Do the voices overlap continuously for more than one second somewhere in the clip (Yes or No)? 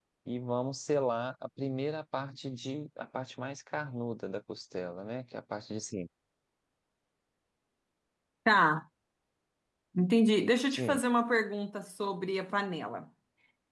No